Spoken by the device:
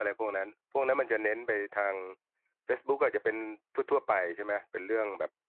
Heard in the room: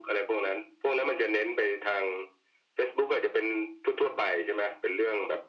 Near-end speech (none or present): none